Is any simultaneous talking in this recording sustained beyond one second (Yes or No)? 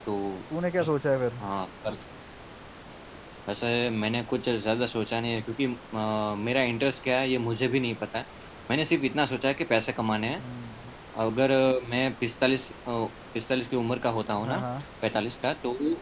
No